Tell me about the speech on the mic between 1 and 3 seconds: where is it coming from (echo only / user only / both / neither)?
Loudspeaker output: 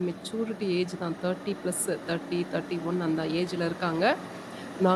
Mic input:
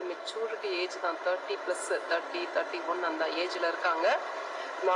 echo only